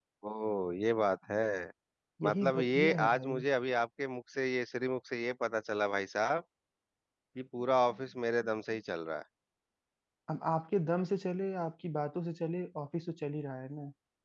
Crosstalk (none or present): present